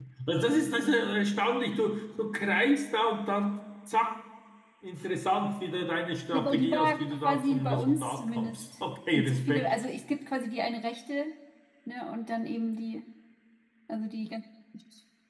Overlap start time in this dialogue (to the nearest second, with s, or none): 6 s